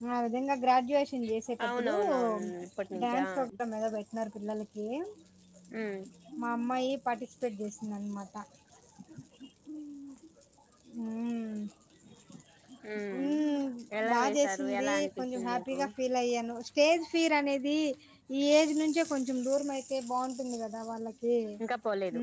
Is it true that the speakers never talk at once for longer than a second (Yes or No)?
No